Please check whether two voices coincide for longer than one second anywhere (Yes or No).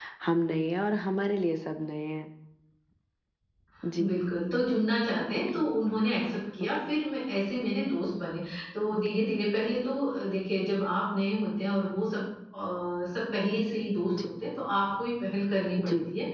No